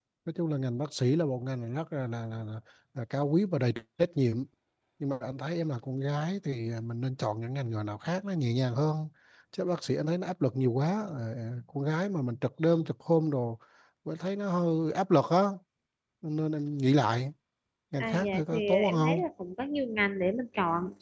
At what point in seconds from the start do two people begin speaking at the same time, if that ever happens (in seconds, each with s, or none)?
18.0 s